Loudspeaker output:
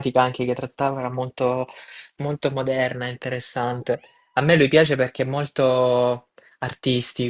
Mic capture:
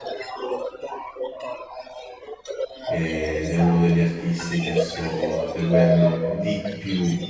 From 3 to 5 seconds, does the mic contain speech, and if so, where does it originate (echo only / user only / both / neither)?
both